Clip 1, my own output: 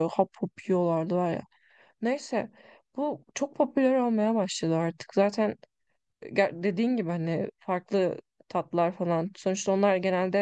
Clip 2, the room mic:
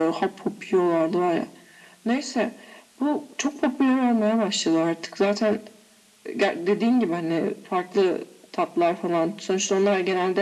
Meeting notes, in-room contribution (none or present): none